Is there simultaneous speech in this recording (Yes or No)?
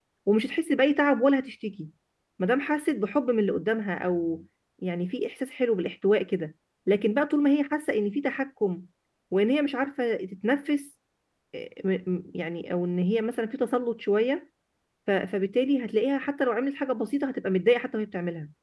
No